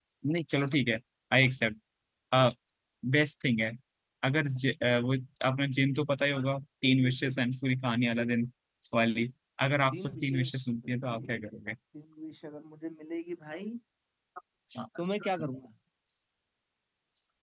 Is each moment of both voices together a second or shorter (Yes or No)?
No